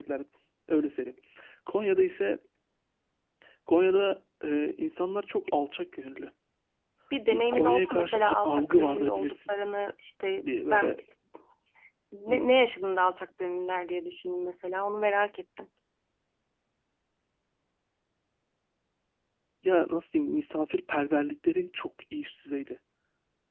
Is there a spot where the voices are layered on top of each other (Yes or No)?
Yes